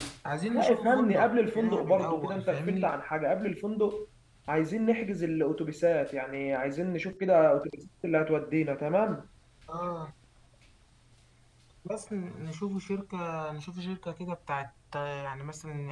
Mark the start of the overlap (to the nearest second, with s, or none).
1 s